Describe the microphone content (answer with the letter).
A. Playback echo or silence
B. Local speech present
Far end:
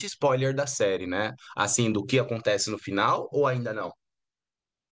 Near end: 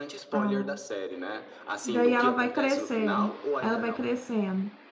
B